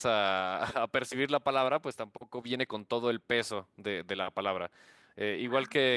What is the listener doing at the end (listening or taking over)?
listening